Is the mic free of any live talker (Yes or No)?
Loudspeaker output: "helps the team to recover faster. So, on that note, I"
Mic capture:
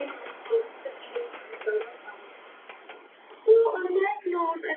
Yes